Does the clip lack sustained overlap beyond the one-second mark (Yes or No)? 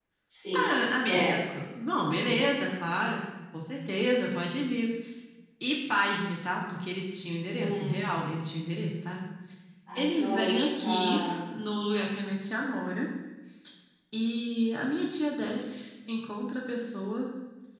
No